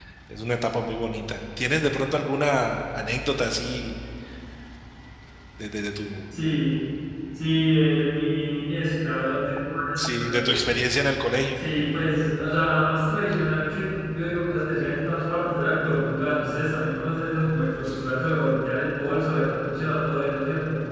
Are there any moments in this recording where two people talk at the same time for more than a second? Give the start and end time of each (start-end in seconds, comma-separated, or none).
none